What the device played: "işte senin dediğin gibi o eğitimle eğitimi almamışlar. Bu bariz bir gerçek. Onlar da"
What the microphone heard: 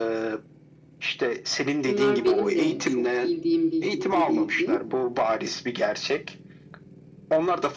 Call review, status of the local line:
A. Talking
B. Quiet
A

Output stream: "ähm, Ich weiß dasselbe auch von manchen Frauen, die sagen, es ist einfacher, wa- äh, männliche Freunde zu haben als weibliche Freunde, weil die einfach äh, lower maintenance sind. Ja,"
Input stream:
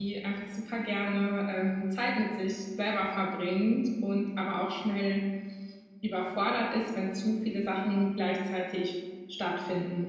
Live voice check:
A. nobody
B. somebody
B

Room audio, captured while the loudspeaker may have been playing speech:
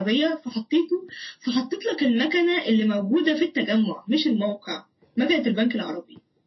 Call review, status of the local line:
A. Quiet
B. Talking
A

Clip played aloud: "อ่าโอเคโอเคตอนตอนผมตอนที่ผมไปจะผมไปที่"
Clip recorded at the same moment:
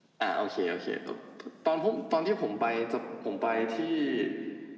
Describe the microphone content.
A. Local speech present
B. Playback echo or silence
B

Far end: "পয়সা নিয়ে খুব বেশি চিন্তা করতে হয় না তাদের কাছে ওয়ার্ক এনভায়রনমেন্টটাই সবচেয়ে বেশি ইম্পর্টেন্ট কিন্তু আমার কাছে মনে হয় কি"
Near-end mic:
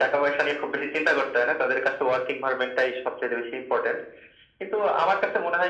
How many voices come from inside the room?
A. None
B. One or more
A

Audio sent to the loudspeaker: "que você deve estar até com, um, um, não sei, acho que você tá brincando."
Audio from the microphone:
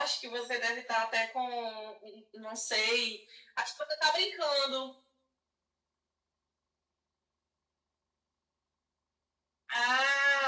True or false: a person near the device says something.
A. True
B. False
B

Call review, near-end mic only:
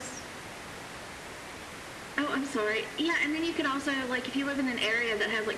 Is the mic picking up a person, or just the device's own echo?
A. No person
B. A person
A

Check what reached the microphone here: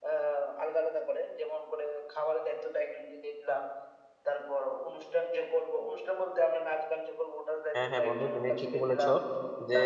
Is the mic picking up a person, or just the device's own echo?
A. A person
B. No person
A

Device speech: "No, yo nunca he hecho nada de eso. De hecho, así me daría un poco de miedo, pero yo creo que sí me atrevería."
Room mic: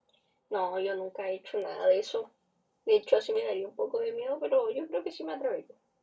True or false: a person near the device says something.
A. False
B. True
A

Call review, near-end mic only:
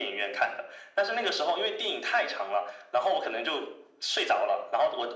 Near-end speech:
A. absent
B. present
A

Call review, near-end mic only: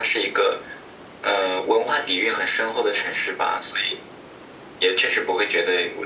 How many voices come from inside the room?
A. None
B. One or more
A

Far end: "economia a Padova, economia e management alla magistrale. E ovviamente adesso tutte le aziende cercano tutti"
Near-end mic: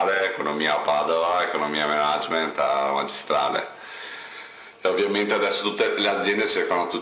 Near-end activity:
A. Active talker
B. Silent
B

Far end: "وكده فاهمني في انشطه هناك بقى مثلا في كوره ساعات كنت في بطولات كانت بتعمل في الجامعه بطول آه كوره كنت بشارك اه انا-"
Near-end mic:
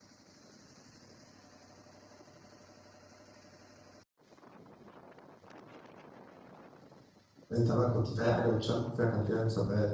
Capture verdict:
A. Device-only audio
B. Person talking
B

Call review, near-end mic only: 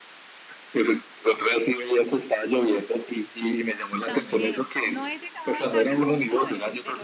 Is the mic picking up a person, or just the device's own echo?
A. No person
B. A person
B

